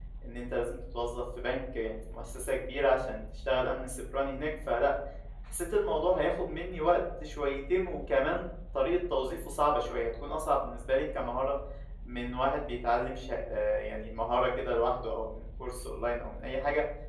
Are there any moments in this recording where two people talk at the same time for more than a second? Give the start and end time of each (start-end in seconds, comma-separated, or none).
none